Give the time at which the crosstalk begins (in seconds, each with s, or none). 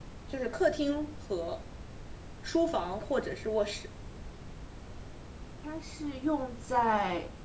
none